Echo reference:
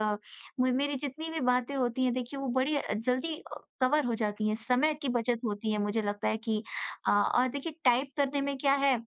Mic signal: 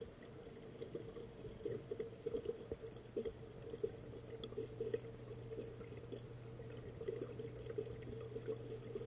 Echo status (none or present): none